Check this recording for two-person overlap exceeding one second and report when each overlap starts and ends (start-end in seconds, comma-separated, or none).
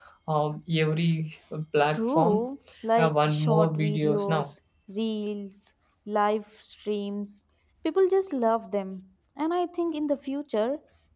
3.0-4.5